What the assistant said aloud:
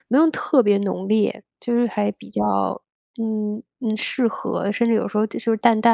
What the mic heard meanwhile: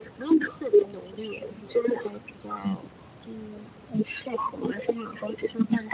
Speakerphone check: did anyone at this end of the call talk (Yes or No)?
No